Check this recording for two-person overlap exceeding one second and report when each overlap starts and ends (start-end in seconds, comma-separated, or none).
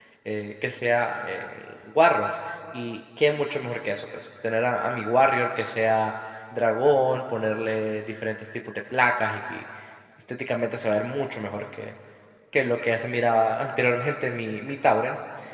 none